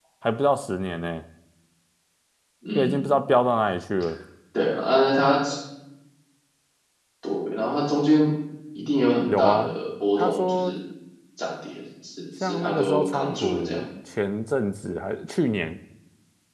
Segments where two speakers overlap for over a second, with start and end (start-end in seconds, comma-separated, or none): 12.4-13.8